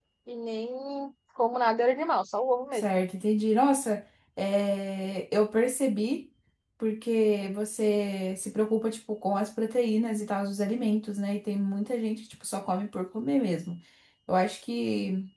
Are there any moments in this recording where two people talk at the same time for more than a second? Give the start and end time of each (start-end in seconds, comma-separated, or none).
none